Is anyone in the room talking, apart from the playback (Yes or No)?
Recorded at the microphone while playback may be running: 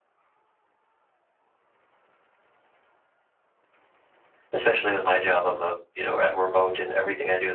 Yes